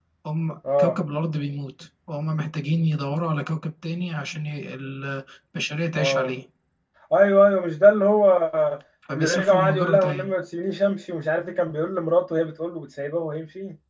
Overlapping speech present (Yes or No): Yes